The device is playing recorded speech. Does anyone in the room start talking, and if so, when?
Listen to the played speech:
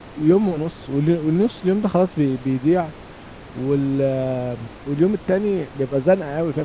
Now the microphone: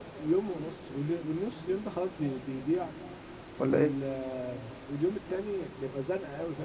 3.6 s

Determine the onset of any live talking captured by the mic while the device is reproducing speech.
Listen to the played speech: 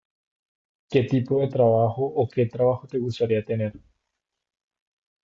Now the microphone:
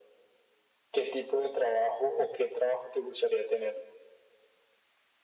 none

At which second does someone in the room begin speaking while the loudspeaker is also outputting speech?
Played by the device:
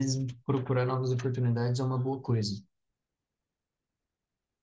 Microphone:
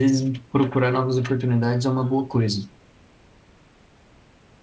none

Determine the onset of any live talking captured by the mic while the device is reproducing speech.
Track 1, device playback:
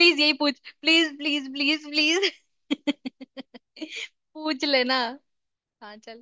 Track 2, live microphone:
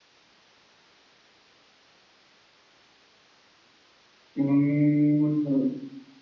4.4 s

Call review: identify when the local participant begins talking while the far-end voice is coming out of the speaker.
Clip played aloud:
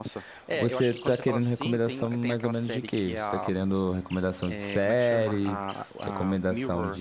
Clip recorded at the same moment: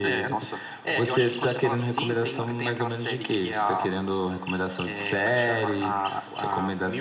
none

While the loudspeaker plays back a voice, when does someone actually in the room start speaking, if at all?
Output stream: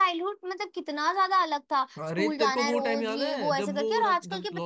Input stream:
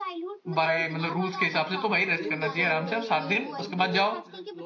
0.5 s

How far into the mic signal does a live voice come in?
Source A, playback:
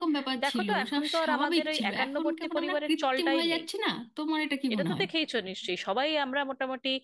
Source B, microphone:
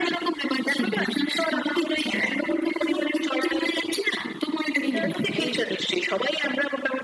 4.8 s

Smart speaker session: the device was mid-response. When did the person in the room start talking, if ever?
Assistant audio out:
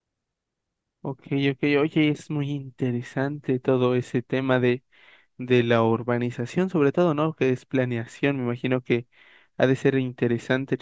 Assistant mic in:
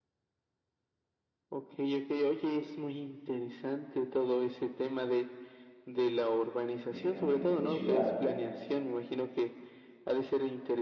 6.9 s

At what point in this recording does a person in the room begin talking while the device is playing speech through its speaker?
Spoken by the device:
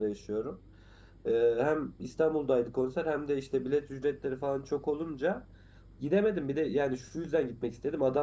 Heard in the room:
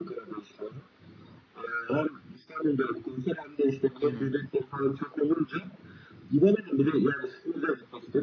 4.0 s

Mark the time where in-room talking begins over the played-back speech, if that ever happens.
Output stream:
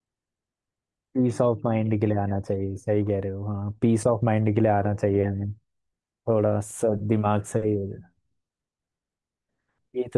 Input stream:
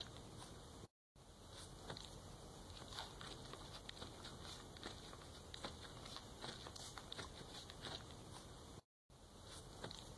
none

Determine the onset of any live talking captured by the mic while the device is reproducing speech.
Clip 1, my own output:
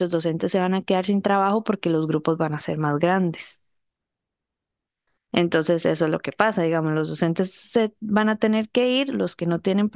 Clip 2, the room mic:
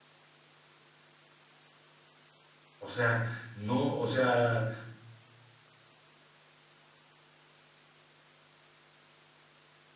2.8 s

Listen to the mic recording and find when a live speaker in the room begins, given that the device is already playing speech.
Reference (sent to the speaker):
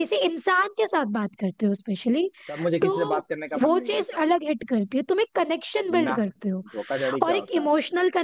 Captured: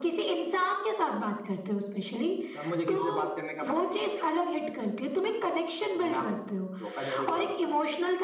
none

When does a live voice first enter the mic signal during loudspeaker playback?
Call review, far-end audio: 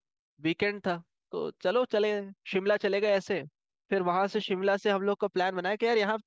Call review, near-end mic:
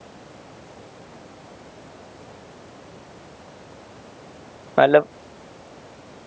4.8 s

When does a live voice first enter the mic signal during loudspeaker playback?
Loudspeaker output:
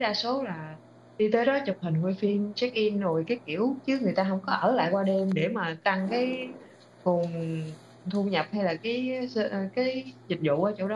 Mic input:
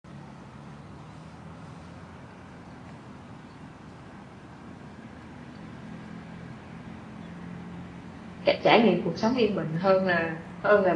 8.4 s

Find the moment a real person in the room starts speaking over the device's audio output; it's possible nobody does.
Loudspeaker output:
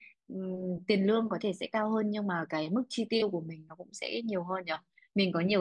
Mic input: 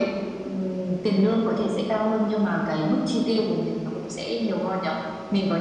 none

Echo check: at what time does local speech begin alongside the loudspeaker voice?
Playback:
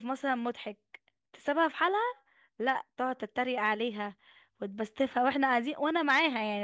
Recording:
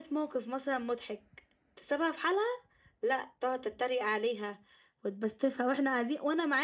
none

